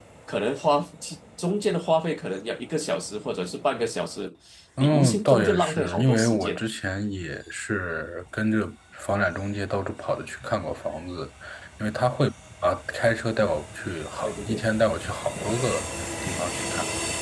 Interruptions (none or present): present